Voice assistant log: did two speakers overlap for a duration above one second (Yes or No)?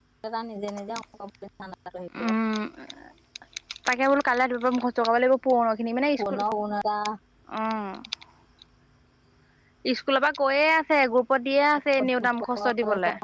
No